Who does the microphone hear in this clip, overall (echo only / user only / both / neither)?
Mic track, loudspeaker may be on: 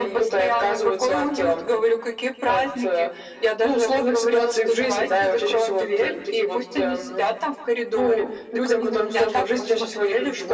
echo only